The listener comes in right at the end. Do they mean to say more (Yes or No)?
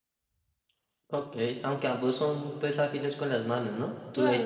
Yes